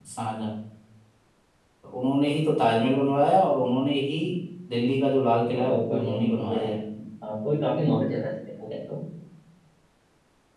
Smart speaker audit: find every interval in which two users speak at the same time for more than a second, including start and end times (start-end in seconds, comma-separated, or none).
5.5-6.8